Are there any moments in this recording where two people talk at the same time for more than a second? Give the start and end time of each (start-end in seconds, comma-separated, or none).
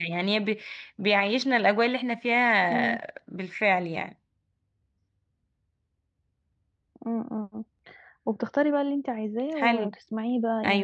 none